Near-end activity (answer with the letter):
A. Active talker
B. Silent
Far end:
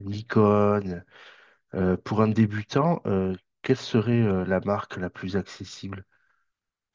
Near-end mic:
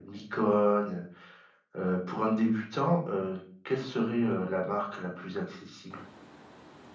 B